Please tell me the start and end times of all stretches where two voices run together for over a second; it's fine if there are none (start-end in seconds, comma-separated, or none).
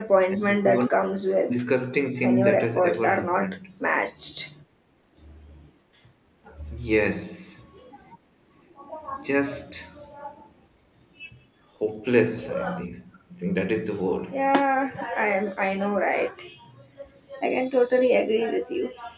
2.2-3.6